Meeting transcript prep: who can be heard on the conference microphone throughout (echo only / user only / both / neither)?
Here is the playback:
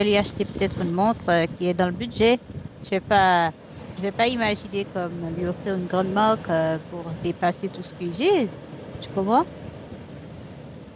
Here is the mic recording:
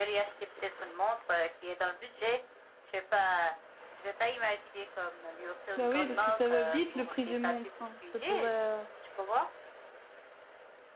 both